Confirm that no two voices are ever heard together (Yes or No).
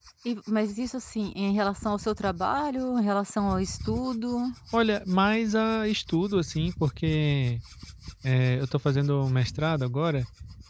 Yes